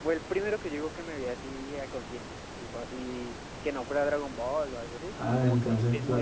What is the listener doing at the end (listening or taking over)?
taking over